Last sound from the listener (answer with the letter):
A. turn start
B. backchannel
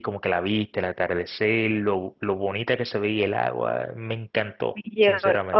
A